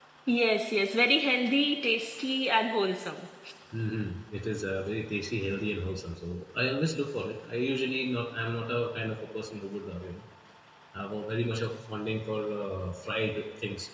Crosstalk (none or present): none